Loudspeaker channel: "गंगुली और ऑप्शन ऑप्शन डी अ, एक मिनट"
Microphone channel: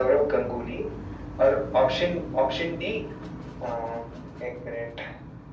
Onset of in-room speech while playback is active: none

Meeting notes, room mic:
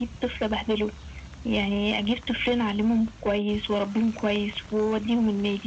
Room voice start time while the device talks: none

